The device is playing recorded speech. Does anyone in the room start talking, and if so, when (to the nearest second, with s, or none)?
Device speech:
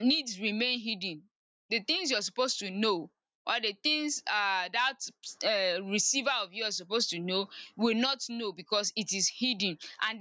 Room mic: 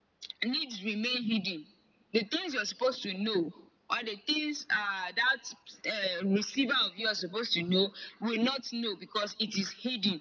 none